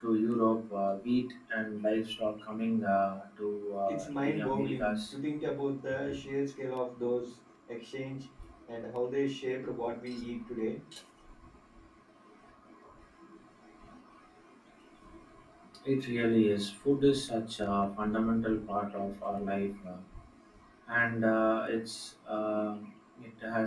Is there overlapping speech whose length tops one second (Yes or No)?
Yes